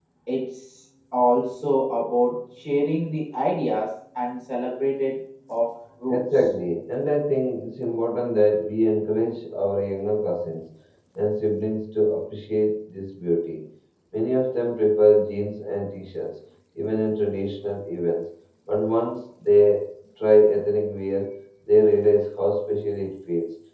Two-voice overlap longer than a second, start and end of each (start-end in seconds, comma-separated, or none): none